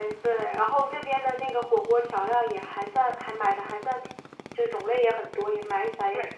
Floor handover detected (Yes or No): Yes